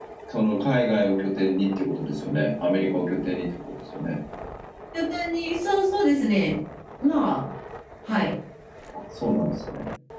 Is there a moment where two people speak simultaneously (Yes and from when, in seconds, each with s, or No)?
No